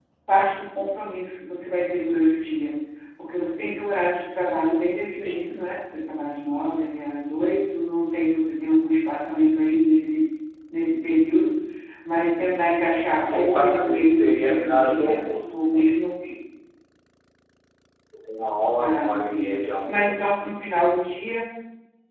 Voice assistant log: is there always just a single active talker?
No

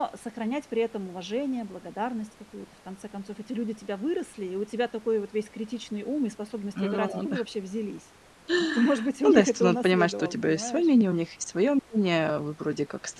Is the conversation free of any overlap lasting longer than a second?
No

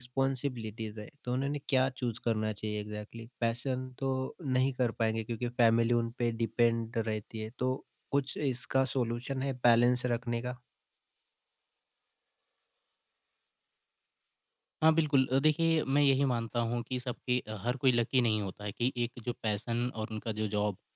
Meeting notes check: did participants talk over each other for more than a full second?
No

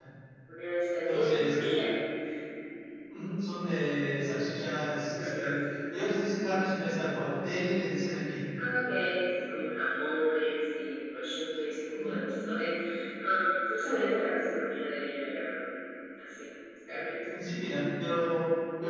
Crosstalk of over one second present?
No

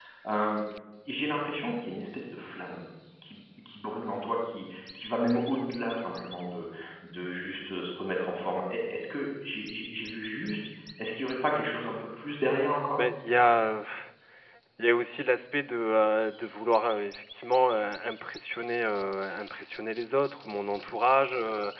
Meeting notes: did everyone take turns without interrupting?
Yes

